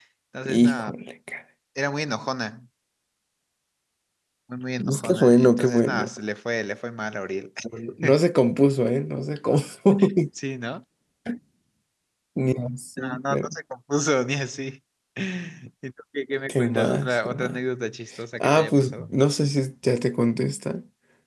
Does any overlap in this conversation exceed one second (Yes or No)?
Yes